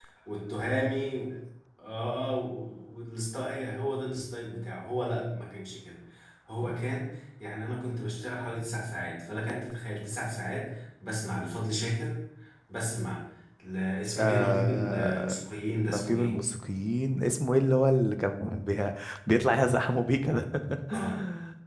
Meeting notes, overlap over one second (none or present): present